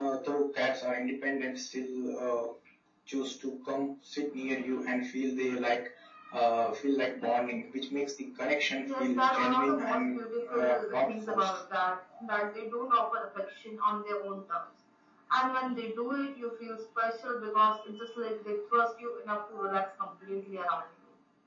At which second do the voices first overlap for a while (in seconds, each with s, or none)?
8.9 s